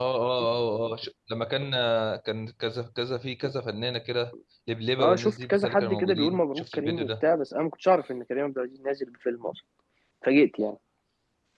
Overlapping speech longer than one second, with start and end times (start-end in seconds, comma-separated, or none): 5.0-7.2